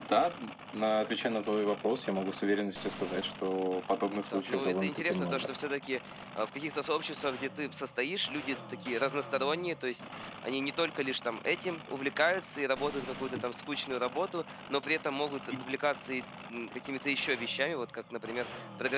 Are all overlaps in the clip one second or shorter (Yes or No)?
No